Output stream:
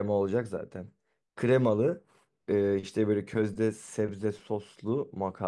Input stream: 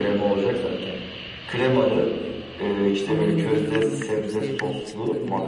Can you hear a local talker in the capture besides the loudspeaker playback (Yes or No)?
Yes